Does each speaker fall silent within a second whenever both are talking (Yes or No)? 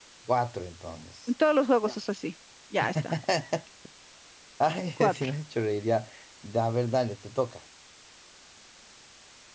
Yes